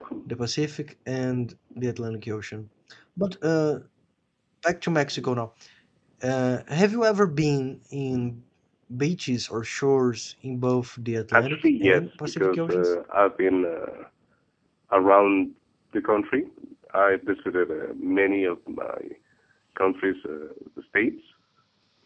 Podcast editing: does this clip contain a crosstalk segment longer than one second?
Yes, from 11.3 s

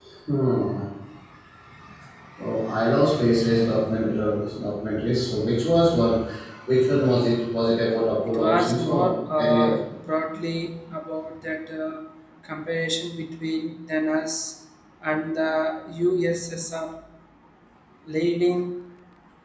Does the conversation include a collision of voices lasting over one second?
Yes, from 8.3 s

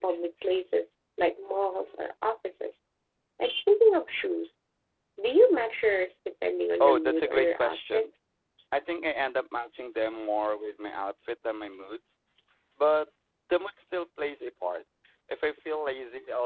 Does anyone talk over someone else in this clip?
Yes, from 6.8 s

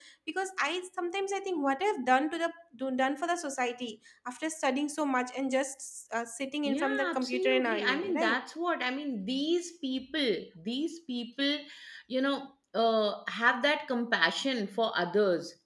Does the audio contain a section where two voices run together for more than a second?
Yes, from 6.7 s

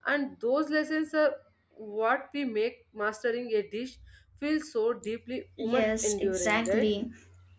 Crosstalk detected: Yes, from 5.6 s

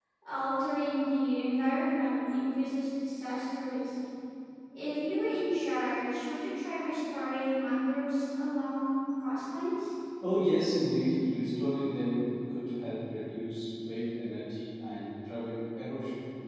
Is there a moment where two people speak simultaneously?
No

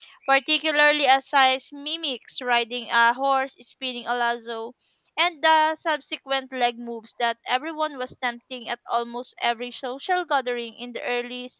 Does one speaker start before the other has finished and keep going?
No

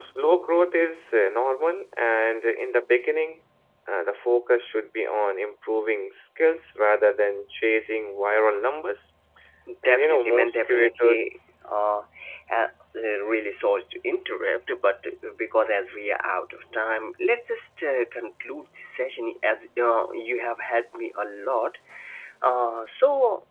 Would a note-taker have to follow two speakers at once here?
Yes, from 9.8 s

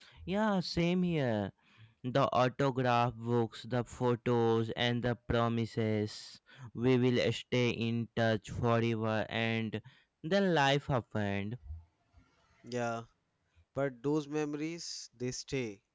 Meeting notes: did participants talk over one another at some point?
No

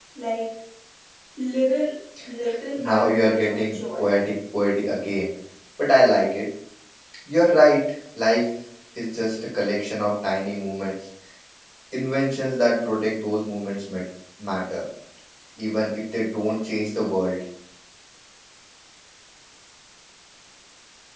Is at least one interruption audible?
Yes, from 2.8 s

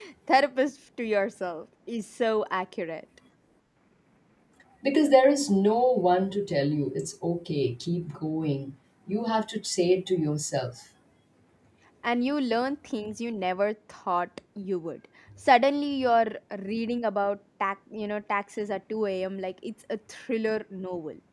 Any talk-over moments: No

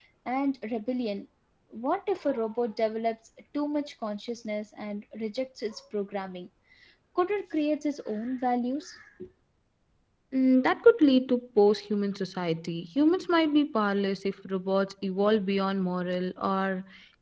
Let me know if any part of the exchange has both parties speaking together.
No

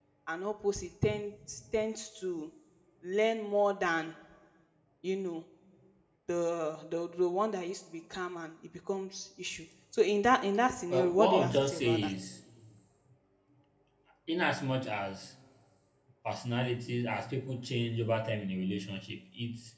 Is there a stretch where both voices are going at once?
Yes, from 10.9 s

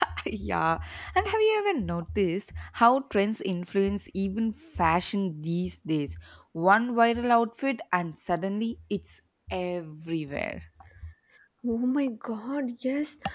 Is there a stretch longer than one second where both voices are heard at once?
No

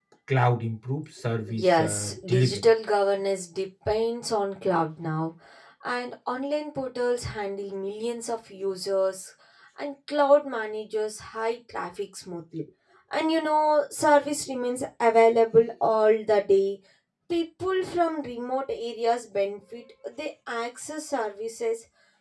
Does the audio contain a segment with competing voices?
Yes, from 1.4 s

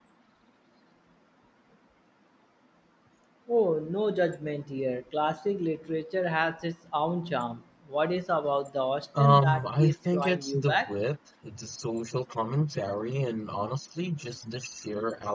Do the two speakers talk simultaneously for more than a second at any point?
Yes, from 9.2 s

